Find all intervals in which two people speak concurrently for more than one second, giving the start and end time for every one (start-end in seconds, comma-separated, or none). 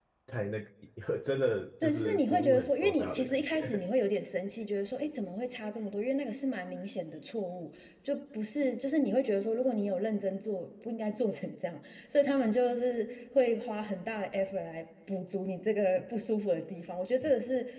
1.8-3.9